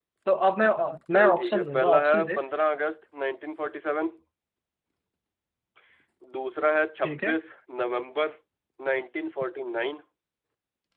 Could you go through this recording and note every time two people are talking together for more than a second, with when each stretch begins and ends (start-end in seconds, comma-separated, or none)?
1.1-2.4